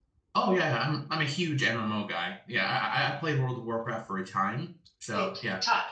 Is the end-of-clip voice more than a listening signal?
Yes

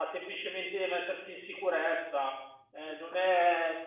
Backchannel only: Yes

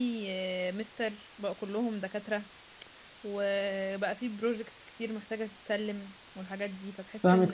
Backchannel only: No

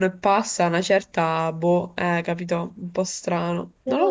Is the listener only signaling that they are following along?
No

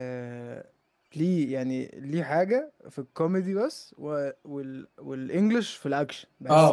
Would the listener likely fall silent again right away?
No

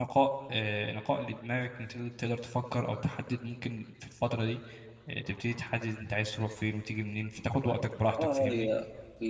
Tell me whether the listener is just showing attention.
No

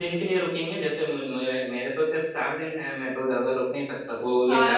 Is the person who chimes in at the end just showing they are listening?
No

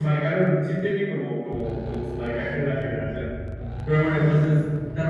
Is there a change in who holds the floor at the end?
No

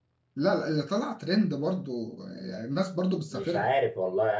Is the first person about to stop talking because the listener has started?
Yes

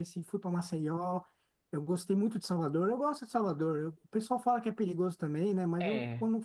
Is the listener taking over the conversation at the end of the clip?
No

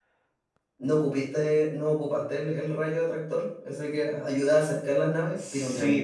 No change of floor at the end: No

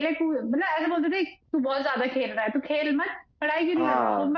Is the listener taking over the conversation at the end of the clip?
No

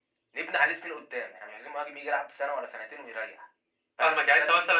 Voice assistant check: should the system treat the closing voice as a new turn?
Yes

